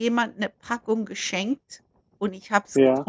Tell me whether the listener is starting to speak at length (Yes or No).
No